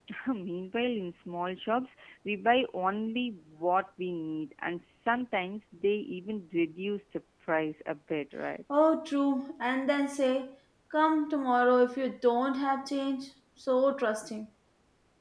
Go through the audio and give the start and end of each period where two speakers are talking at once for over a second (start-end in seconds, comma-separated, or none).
none